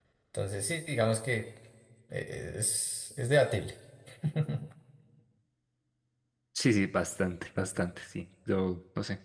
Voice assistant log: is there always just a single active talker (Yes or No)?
Yes